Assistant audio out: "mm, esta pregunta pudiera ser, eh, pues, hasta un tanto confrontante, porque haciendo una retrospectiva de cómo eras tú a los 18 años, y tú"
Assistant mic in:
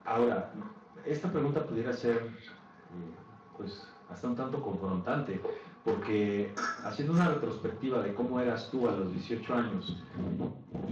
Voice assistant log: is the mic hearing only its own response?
Yes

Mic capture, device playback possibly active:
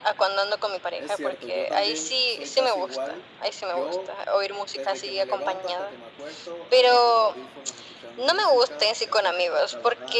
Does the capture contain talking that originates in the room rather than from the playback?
Yes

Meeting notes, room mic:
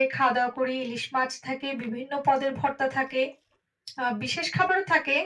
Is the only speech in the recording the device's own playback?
Yes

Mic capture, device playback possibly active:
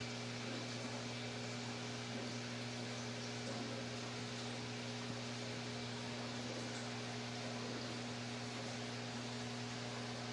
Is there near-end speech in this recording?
No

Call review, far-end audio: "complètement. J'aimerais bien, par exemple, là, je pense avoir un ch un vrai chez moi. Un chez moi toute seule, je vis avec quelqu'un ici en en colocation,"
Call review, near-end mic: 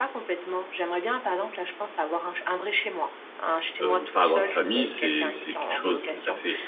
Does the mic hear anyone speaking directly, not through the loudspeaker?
Yes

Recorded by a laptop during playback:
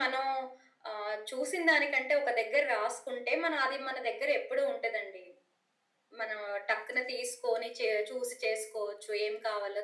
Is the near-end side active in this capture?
No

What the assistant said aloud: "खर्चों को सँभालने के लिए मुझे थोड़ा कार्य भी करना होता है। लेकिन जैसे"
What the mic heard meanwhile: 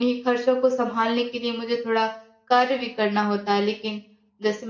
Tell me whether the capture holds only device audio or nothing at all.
Yes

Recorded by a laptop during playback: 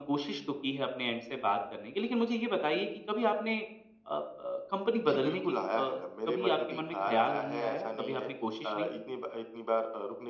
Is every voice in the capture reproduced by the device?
Yes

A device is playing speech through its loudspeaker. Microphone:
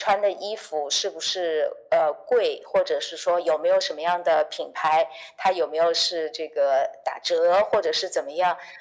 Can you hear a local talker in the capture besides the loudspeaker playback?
No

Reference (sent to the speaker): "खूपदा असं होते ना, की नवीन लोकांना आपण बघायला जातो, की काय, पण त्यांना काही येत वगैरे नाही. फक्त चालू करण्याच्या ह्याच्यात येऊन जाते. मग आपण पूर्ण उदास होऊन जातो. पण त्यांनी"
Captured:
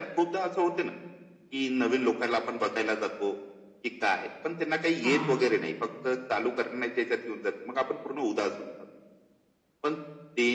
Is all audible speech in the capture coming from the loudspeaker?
No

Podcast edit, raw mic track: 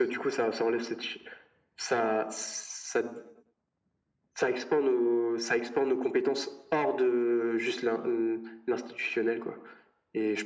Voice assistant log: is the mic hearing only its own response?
Yes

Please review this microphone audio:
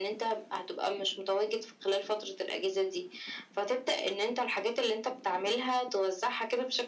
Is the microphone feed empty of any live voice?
Yes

